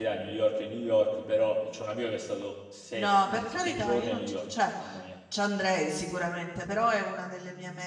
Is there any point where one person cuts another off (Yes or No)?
Yes